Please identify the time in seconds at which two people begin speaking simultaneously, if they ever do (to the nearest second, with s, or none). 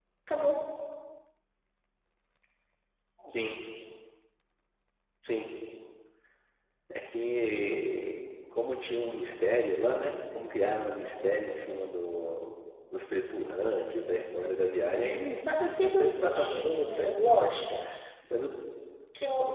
16 s